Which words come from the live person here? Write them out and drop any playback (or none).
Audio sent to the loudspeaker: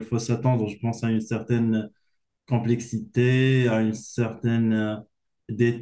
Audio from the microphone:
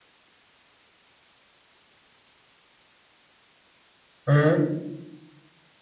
hmm.